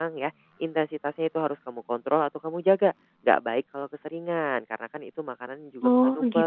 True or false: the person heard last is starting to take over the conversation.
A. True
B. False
B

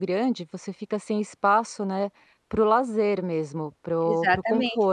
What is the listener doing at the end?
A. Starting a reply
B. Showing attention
A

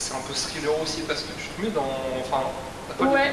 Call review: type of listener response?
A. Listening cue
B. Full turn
B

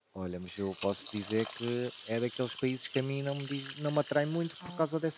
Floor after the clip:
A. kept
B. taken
A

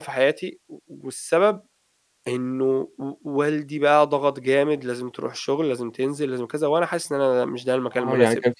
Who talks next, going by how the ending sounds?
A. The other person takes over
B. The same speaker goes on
A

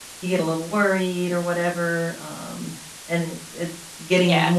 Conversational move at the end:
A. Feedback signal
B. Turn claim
A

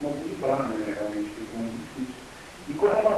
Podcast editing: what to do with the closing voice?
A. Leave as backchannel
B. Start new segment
B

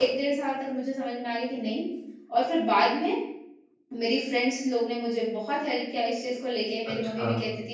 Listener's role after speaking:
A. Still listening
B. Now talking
A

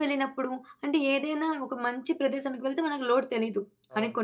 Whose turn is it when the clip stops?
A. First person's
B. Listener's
A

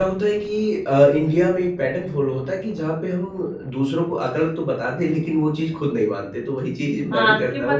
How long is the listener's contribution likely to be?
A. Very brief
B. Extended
B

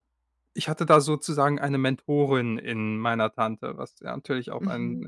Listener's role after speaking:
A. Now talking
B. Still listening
A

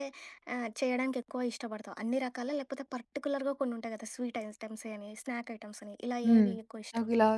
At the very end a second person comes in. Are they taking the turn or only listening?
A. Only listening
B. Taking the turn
B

